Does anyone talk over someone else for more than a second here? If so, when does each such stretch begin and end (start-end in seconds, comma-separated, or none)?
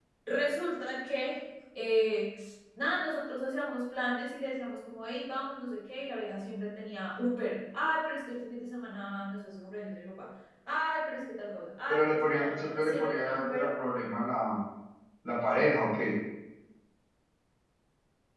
11.9-13.7